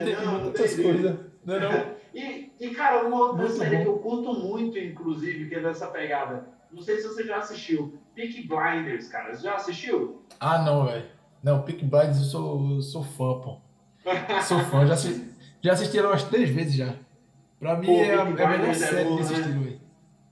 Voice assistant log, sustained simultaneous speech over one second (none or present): present